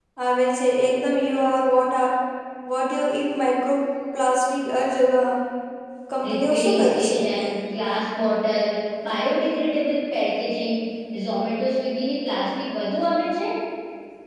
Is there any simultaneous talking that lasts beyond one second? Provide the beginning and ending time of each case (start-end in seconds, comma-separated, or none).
6.2-7.5